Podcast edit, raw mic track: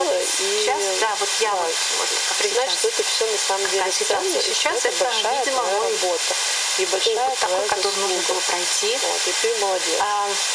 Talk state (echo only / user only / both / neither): echo only